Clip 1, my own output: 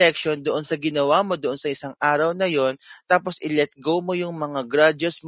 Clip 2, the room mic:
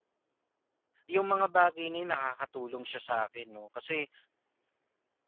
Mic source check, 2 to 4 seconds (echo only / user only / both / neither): user only